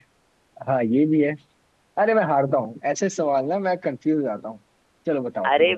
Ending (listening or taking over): taking over